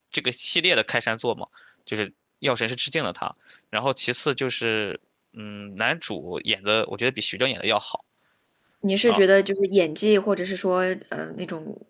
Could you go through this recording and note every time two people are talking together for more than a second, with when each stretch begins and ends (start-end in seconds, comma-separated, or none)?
none